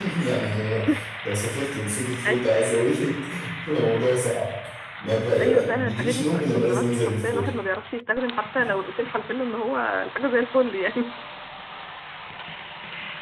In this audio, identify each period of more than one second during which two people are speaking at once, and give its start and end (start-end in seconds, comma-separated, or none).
5.4-7.5